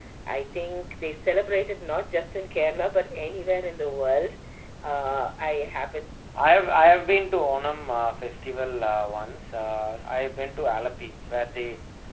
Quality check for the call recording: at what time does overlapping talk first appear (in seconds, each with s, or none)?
none